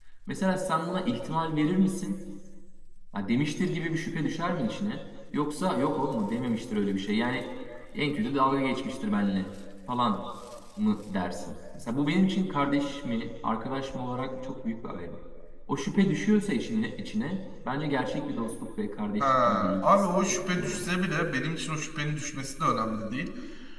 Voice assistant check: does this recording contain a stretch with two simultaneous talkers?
Yes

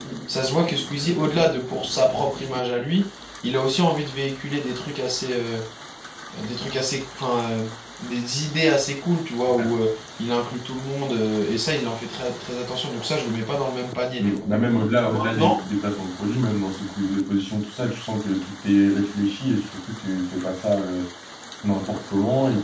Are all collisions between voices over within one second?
Yes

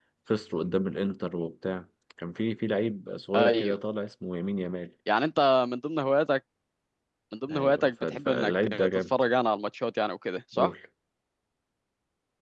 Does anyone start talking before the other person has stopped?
Yes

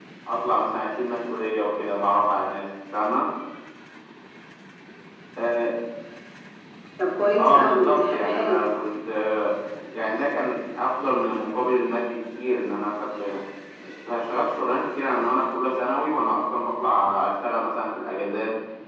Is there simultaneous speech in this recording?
Yes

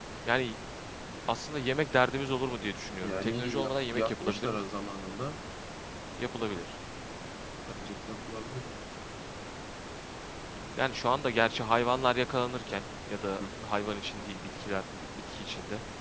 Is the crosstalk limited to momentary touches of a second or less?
No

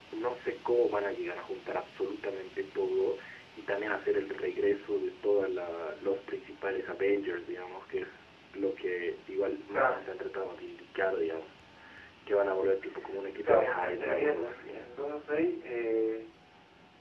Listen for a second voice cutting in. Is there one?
Yes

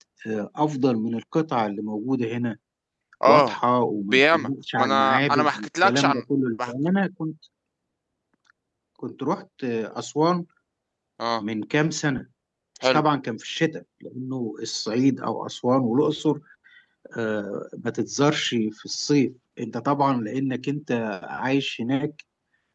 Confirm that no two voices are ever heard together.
No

